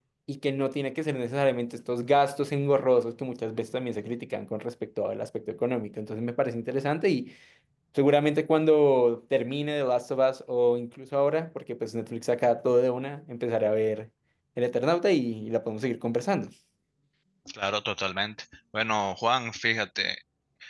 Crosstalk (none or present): none